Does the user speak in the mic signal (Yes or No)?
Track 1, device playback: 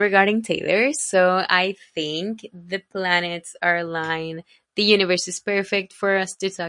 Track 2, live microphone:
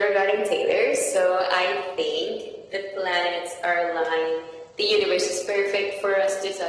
No